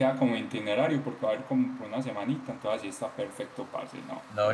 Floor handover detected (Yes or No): Yes